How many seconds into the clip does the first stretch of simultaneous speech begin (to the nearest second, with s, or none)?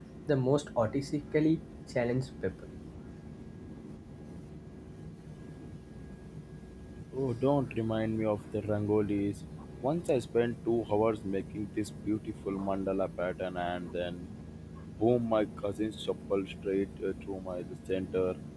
none